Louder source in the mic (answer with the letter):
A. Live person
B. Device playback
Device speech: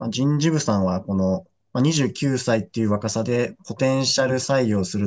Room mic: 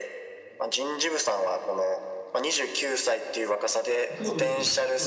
B